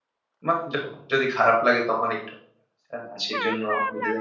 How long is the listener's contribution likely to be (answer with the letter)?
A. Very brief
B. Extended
B